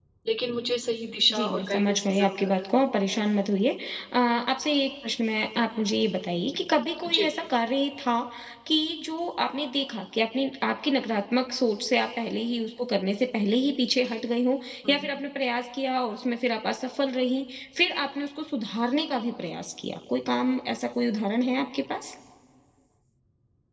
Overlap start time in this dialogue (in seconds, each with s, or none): 1.3 s